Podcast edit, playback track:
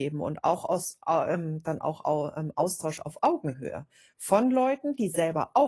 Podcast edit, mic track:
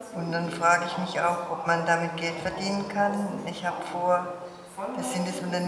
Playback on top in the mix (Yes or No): No